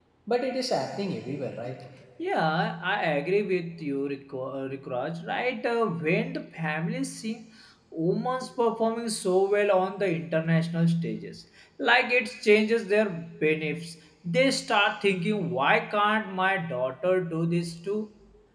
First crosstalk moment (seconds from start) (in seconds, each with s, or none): none